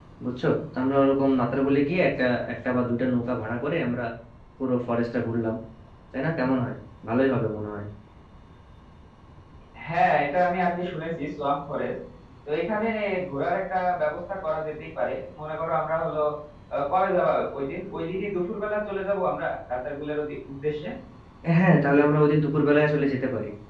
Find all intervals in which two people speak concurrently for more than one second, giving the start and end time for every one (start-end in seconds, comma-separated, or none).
none